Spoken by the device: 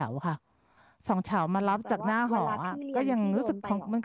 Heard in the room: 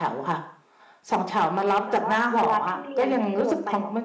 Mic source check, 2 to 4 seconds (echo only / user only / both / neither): echo only